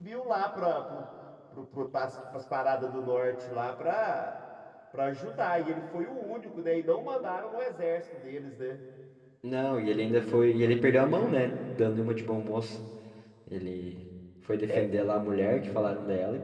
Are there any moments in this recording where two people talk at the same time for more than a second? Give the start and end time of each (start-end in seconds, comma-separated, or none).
none